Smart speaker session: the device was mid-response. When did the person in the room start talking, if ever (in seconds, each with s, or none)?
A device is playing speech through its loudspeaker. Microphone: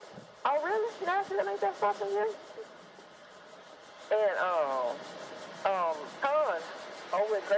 none